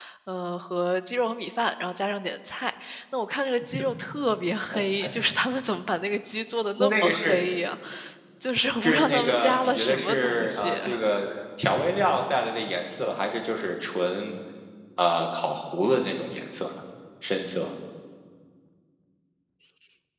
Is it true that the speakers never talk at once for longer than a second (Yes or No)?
No